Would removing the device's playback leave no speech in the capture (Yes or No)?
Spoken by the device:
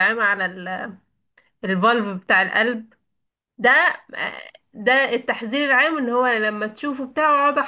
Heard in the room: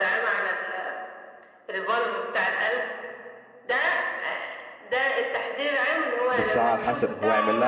No